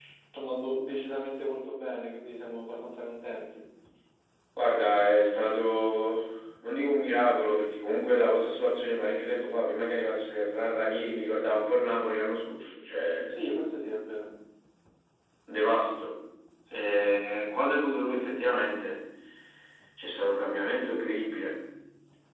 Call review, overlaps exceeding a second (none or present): none